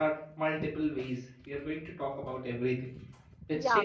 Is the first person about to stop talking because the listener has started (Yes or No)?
Yes